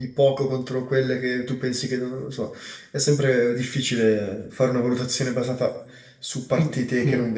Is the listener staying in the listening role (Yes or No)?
No